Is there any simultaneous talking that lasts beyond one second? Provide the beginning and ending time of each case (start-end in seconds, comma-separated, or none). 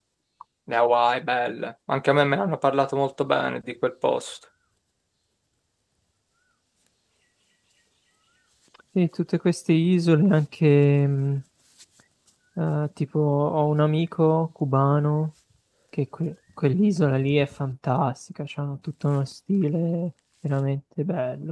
none